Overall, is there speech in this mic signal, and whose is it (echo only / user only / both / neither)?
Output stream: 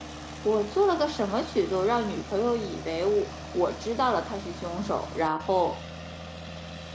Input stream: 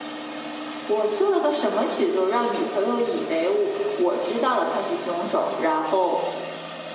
echo only